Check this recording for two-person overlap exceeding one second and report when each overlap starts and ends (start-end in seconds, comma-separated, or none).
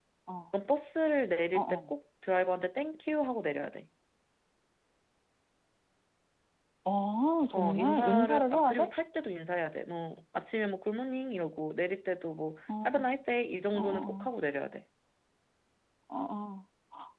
7.5-8.9